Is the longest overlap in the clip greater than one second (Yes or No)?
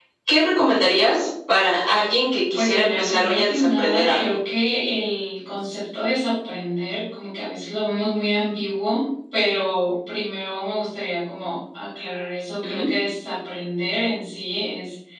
Yes